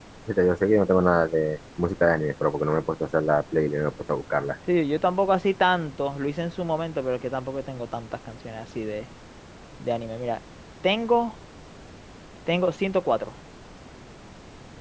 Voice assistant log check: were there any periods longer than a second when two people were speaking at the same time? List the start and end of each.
none

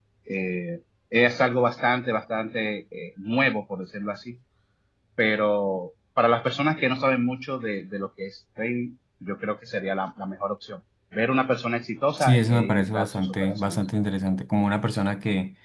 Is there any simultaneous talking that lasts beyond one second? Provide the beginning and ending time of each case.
12.2-13.8

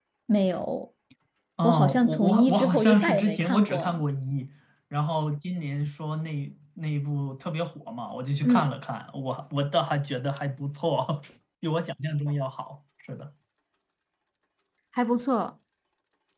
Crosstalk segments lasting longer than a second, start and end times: 1.6-4.0

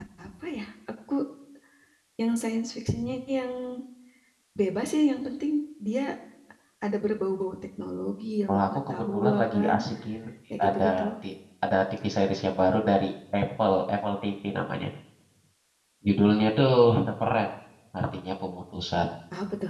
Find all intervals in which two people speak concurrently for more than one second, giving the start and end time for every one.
8.5-9.7

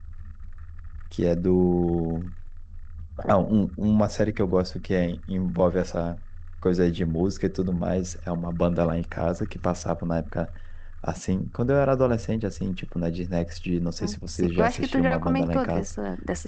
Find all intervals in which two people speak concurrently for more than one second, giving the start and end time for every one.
14.3-15.9

